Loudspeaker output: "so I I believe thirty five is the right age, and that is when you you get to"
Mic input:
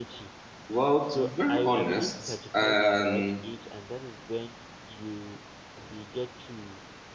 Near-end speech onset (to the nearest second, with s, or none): 1 s